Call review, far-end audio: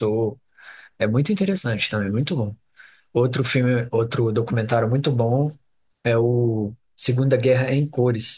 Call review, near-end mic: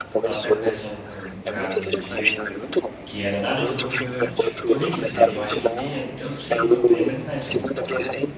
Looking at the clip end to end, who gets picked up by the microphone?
both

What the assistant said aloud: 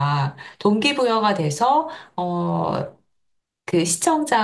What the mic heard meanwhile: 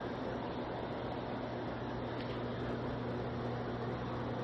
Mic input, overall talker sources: neither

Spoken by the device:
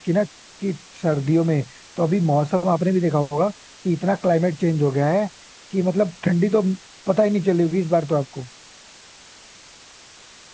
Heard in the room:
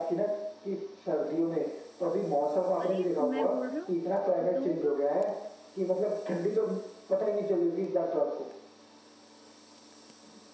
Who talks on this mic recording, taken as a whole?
both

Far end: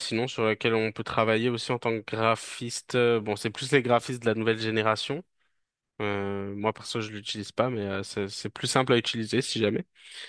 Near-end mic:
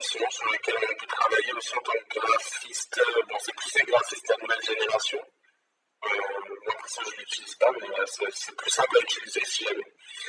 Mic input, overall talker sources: echo only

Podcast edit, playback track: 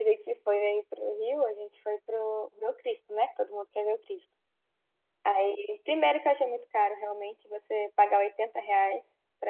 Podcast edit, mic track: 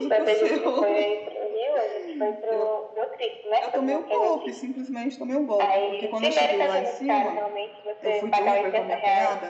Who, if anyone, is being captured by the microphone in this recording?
both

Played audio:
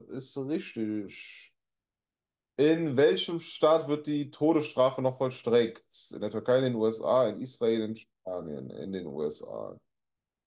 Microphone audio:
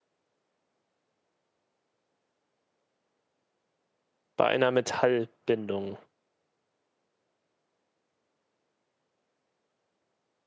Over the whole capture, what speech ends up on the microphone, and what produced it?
user only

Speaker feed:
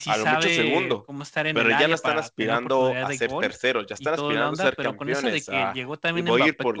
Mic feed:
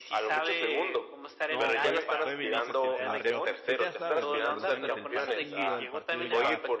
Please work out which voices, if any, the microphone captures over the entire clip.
both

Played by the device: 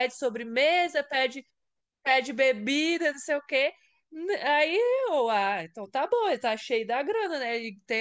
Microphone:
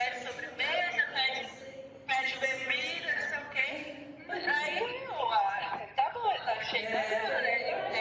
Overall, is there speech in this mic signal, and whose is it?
both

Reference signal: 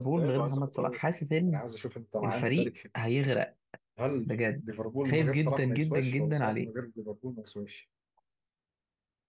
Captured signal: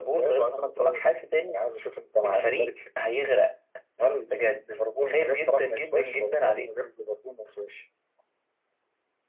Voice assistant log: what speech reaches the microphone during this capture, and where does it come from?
echo only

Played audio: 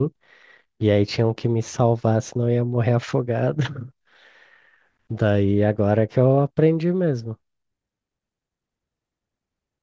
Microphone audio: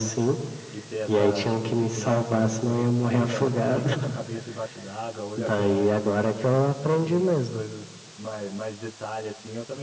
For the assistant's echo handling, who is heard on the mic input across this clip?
both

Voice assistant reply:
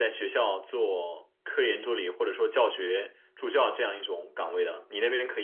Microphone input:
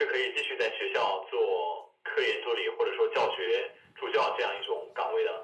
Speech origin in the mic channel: echo only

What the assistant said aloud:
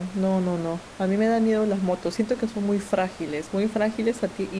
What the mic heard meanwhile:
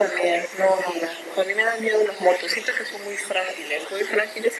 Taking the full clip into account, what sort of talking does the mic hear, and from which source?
echo only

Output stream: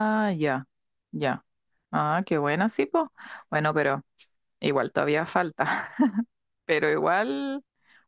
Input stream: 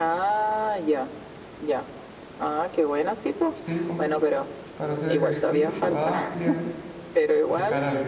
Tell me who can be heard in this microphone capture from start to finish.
both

